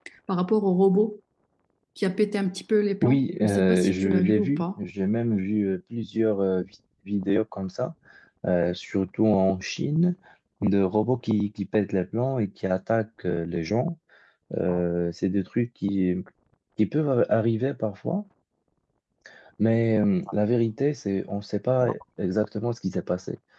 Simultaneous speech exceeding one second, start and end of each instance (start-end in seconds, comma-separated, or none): 3.0-4.6